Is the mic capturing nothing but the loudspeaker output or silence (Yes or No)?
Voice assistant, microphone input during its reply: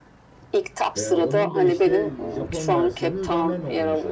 No